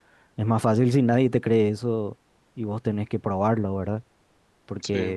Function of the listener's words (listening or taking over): listening